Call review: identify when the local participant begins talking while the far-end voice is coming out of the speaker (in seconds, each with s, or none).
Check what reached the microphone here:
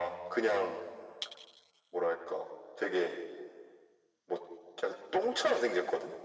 none